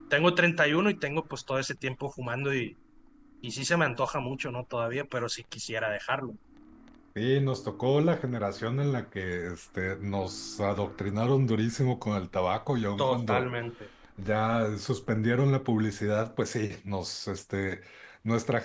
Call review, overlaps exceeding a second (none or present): none